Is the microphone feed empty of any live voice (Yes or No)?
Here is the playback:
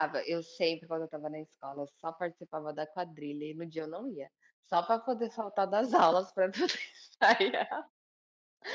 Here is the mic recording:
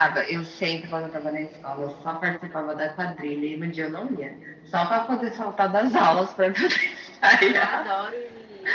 No